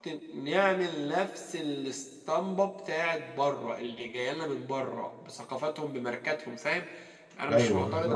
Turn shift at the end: No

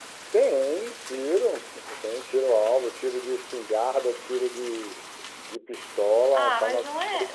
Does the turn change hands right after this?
Yes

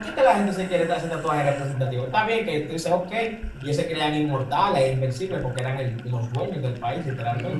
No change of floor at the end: No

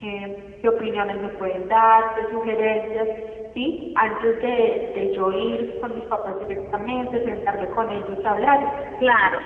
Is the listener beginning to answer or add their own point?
Yes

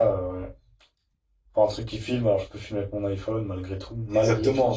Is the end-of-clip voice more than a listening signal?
Yes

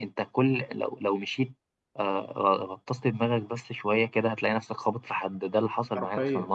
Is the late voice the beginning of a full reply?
Yes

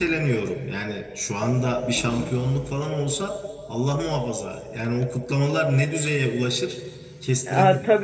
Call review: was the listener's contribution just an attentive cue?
No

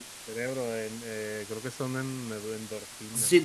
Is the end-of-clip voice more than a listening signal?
Yes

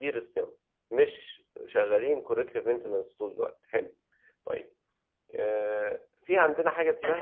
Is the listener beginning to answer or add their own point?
Yes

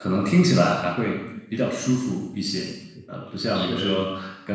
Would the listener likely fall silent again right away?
Yes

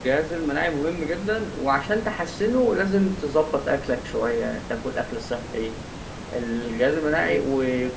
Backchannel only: Yes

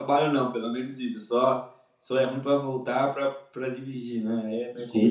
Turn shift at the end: Yes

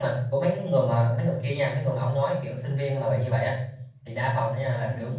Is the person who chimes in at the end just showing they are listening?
Yes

